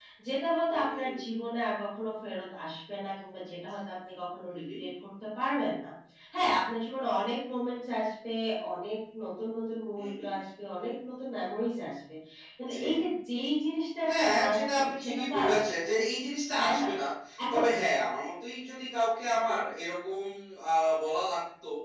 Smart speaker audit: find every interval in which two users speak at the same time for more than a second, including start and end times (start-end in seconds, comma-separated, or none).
14.2-15.7